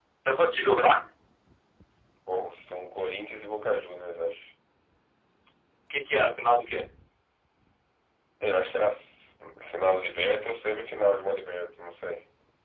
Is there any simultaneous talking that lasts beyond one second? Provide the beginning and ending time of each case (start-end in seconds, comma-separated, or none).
none